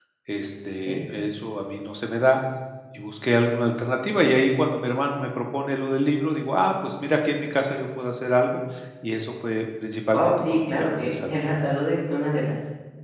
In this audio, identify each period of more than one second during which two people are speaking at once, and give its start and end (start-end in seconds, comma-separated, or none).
10.1-11.4